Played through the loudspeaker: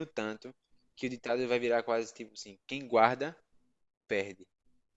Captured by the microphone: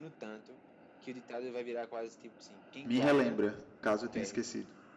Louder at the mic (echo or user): user